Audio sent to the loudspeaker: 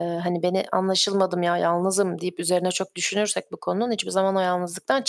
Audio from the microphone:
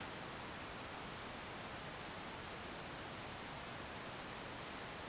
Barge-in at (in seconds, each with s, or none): none